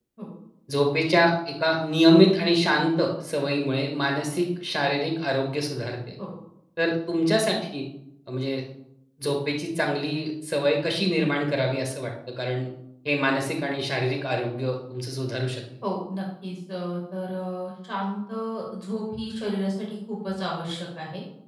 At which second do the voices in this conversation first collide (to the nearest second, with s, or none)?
none